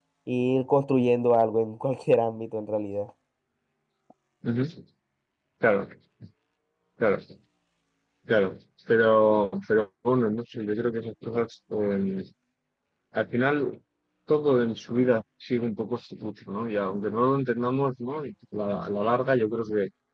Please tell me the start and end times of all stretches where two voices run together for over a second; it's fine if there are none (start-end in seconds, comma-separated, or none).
none